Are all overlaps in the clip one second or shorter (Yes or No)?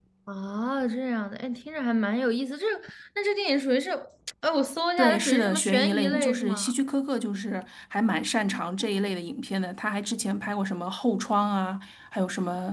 No